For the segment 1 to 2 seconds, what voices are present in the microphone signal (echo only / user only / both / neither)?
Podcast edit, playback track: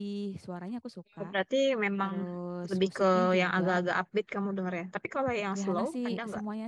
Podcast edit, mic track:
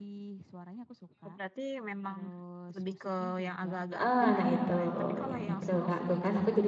echo only